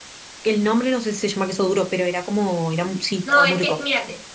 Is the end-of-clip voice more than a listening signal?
Yes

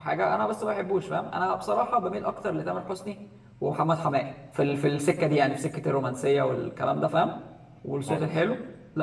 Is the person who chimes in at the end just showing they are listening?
Yes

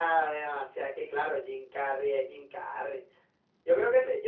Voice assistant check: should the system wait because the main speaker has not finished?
Yes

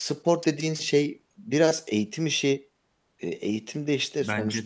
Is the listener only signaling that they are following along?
Yes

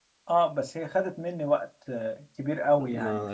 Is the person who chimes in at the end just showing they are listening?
No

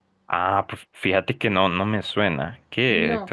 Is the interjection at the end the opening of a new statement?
Yes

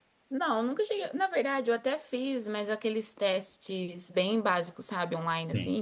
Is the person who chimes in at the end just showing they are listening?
Yes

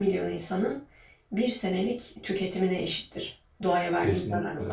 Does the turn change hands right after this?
Yes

